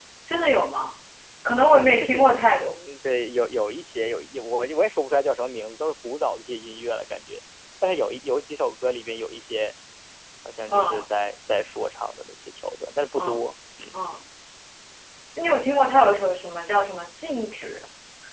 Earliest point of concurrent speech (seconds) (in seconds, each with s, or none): 1.5 s